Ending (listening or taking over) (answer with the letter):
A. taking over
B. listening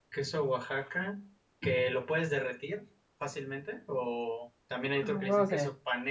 B